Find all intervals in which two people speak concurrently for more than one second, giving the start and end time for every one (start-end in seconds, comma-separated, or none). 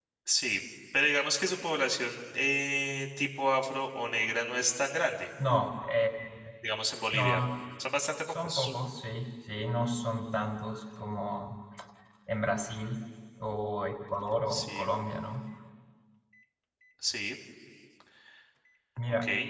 none